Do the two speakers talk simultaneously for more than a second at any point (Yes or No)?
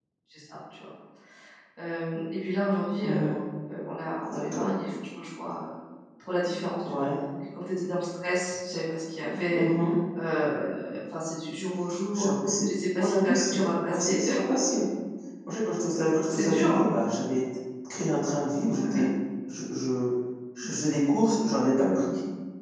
Yes